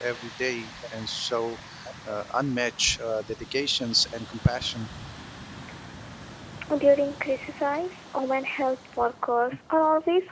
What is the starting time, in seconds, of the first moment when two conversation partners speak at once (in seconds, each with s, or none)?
none